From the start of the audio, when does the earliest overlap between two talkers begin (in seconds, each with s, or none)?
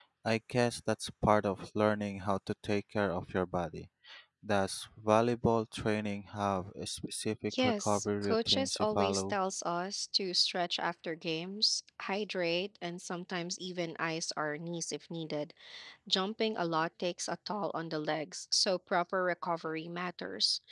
7.5 s